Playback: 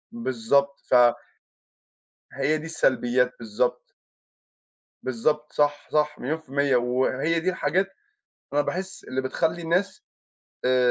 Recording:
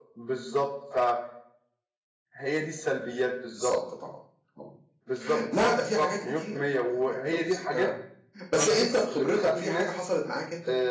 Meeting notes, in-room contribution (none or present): present